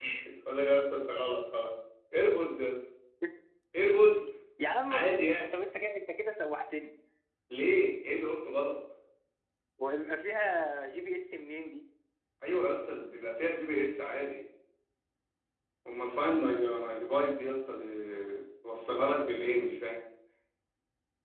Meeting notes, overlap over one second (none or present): none